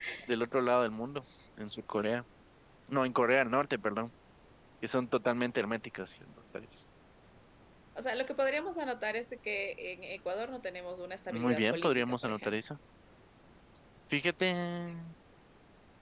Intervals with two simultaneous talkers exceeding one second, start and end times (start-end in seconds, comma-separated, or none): 11.3-12.5